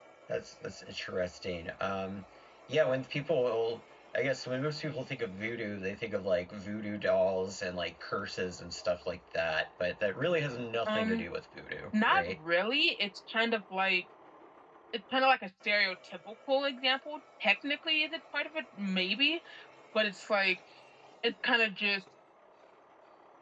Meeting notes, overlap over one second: none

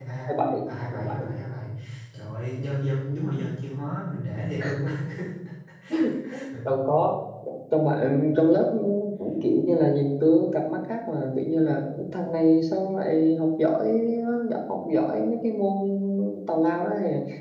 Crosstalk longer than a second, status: none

